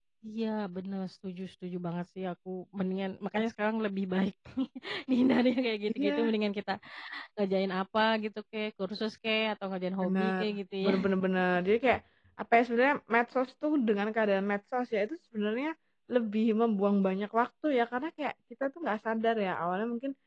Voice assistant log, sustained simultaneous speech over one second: none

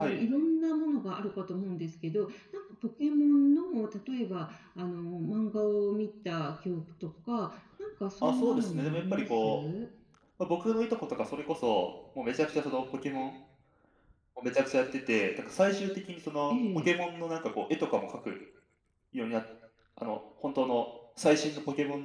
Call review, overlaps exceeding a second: present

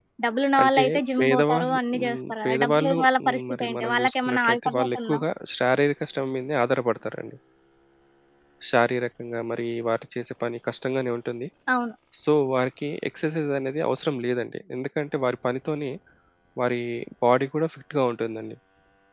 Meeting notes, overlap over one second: present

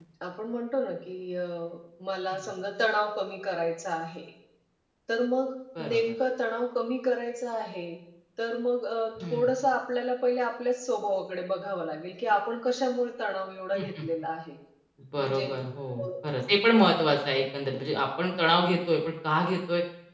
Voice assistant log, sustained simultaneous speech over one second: none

